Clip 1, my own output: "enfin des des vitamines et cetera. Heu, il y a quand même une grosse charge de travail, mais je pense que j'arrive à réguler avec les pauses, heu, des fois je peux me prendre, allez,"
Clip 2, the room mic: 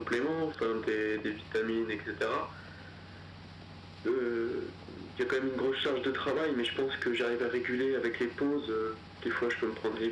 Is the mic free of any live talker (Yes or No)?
Yes